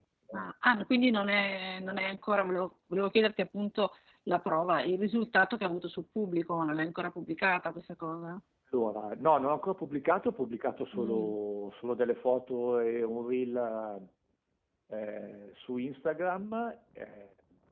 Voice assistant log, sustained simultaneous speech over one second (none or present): none